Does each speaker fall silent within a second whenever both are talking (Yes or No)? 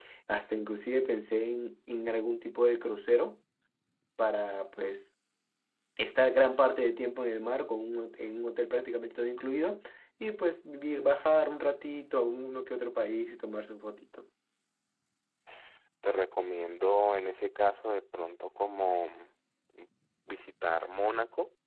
Yes